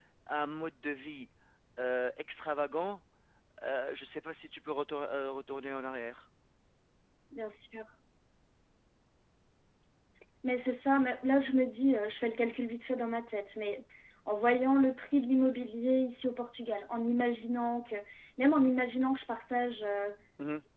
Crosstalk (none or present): none